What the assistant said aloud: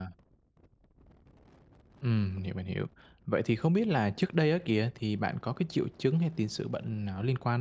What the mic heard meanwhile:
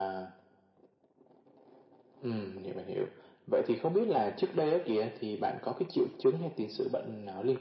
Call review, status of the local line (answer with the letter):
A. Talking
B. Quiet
B